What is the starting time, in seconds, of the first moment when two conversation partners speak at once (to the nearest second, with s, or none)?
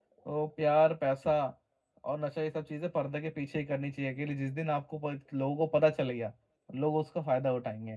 none